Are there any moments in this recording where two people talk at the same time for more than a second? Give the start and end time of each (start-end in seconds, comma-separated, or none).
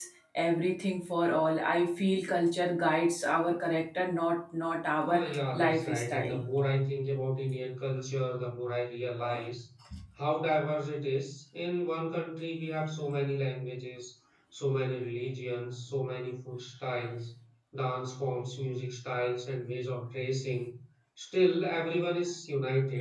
5.0-6.4